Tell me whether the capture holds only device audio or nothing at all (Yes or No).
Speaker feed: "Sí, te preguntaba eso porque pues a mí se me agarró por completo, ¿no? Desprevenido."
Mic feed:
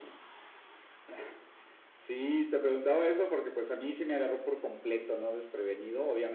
Yes